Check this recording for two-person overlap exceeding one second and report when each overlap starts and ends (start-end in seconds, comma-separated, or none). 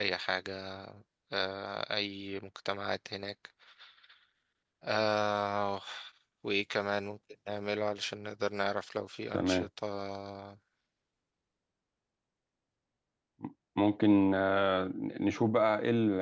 none